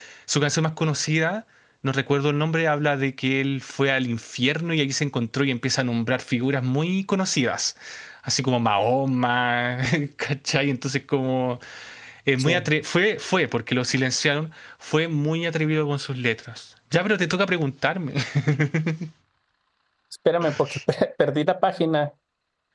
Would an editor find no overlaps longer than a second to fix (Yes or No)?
Yes